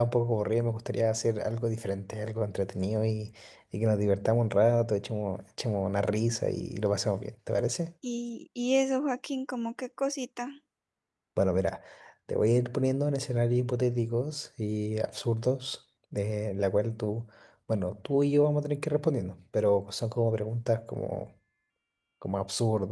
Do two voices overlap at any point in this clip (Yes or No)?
No